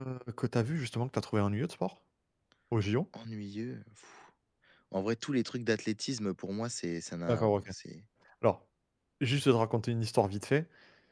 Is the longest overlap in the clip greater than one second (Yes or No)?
No